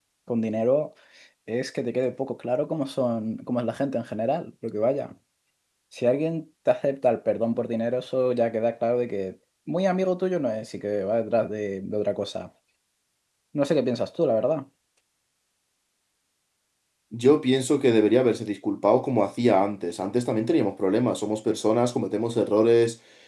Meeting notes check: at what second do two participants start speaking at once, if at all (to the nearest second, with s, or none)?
none